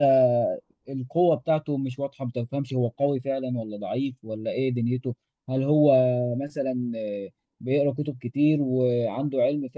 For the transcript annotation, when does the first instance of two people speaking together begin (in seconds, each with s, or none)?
none